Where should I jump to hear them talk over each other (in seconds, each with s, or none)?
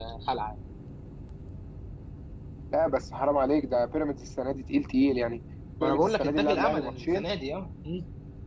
5.8 s